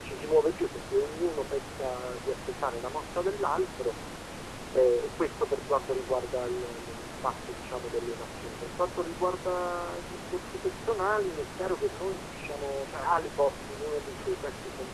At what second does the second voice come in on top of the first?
none

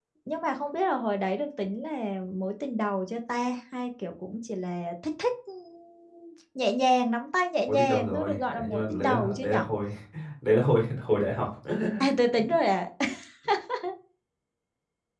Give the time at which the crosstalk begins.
8 s

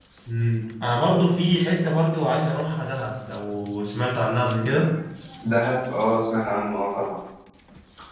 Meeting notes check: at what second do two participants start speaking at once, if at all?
none

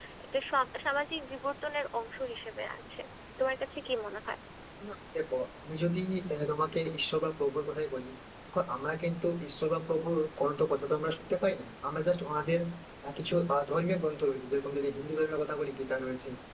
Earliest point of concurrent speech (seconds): none

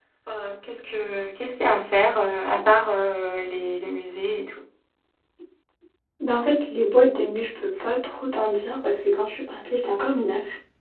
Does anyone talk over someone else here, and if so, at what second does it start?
none

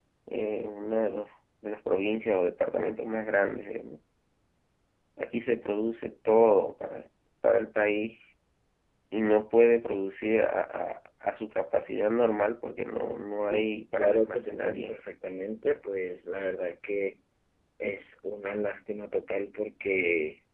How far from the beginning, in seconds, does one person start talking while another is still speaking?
14 s

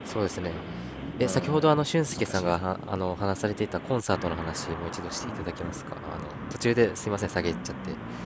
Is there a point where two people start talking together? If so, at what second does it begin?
1 s

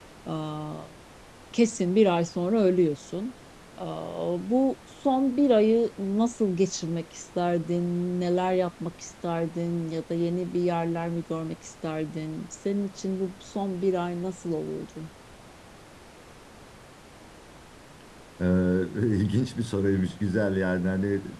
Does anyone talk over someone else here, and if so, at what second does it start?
none

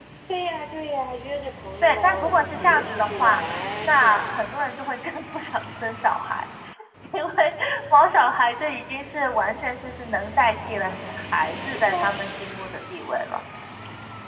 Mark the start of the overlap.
2 s

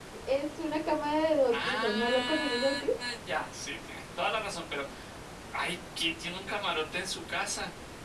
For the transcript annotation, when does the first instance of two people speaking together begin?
1 s

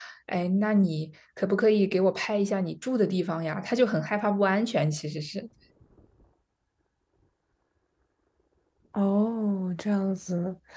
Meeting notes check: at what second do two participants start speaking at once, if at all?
none

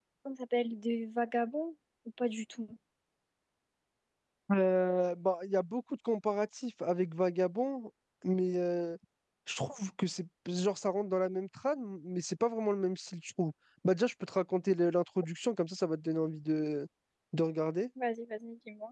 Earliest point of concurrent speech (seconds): none

